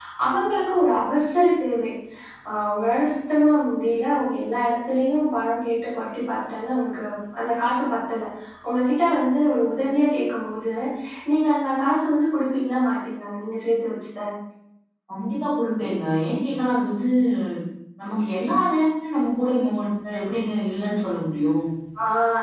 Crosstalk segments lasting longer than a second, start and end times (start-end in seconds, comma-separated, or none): none